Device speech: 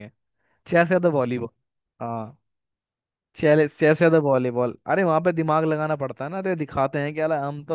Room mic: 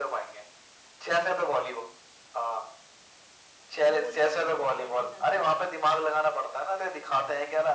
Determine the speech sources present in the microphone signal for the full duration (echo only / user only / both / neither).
both